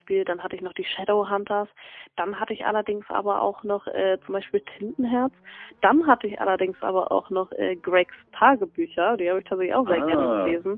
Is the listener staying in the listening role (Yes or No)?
No